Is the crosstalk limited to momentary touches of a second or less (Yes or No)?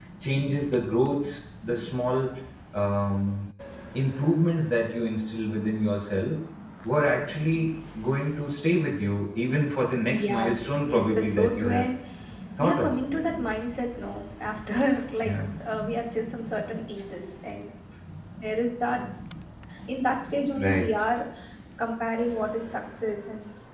No